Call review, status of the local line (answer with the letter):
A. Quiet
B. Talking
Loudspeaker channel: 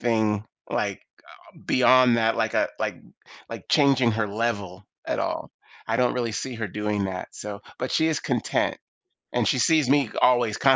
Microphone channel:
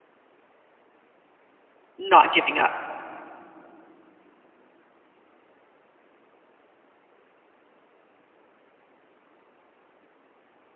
B